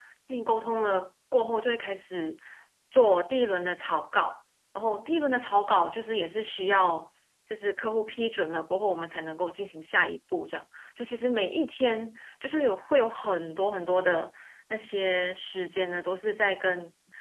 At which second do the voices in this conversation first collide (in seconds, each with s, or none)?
none